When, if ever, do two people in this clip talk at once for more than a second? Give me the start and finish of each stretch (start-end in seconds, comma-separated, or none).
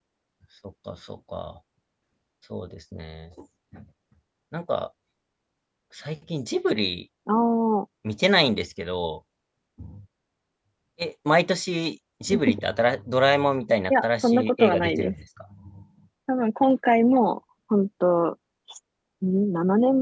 13.9-15.1